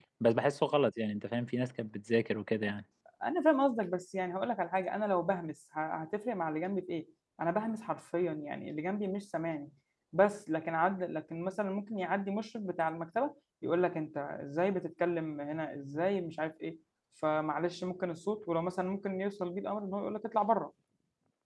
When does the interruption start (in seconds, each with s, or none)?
none